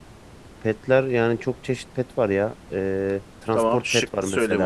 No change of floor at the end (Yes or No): No